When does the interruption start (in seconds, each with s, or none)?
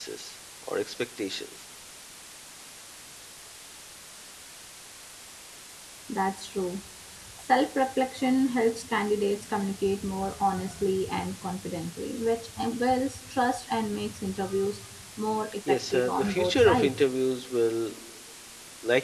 15.7 s